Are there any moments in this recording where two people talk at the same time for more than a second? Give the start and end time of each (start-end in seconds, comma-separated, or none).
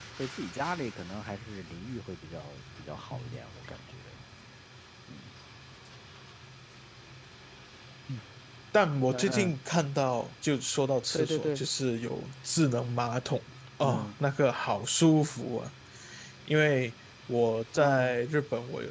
none